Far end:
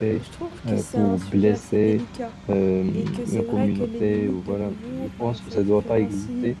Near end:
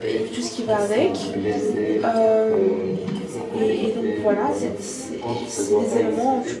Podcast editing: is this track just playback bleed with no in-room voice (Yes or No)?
No